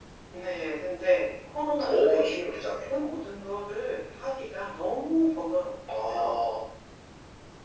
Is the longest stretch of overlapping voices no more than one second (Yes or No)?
Yes